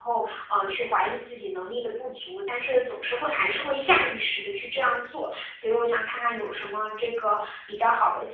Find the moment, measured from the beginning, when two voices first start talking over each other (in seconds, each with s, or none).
none